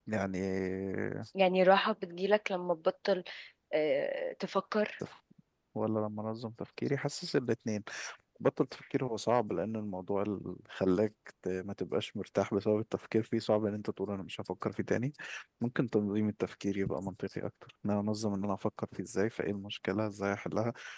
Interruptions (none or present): none